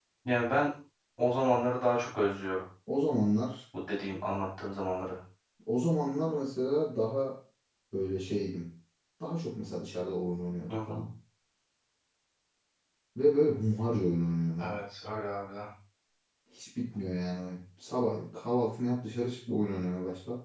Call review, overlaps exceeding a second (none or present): none